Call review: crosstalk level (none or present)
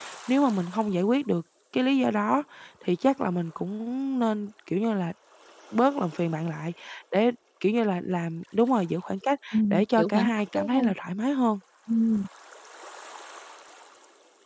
present